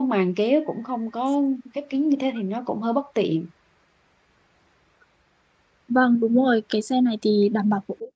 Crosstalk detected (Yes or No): No